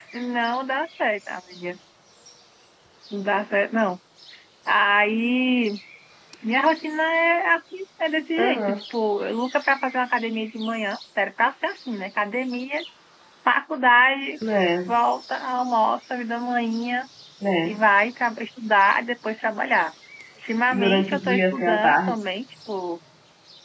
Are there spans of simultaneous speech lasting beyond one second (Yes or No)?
Yes